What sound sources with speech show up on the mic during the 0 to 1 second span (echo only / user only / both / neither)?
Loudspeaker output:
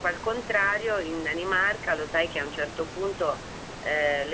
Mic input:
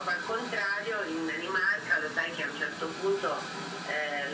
echo only